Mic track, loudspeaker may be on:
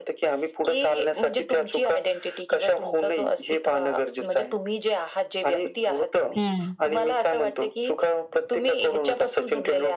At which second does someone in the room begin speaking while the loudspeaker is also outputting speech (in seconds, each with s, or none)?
6.4 s